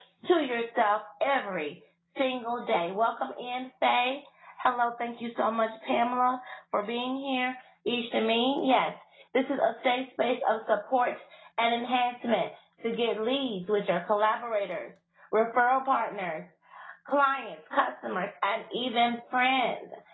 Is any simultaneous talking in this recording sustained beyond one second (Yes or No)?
No